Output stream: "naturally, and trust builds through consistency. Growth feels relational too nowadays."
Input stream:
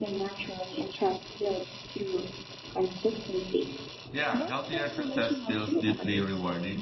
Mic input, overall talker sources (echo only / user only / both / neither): both